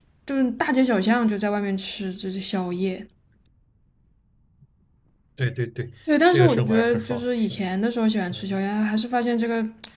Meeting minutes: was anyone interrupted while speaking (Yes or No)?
Yes